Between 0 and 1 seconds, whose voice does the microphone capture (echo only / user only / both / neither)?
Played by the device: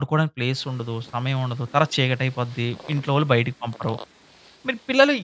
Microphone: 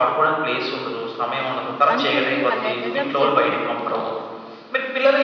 echo only